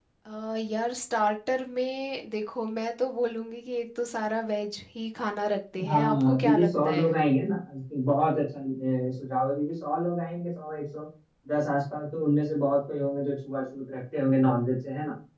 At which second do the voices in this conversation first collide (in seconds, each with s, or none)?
5.8 s